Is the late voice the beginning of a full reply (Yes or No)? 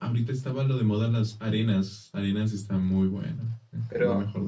Yes